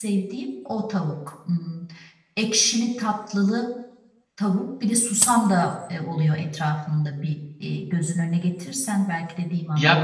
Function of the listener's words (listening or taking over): taking over